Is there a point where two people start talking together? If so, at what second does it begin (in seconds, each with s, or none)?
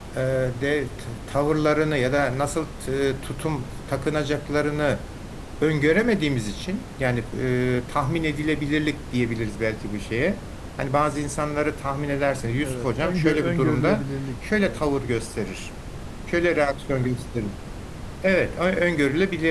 12.6 s